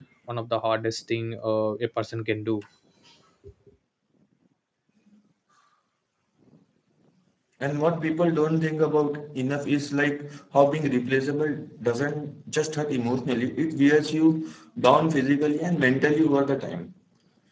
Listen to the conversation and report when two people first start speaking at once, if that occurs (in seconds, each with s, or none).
none